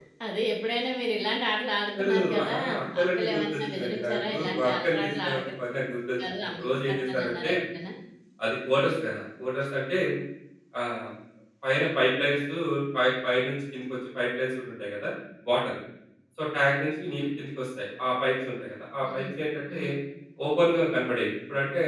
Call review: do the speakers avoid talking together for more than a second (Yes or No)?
No